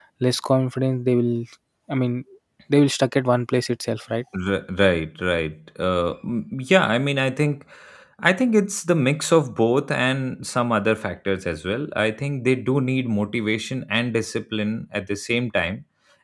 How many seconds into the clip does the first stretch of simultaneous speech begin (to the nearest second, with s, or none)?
none